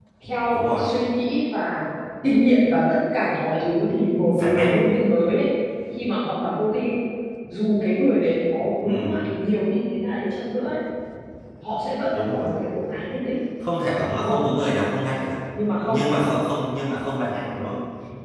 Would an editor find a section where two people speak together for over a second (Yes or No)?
No